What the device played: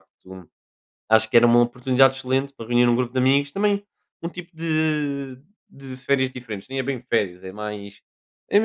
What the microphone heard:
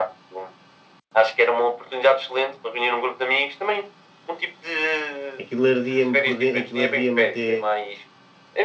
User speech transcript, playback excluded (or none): aquilo ardia-me por den aquilo ardia-me até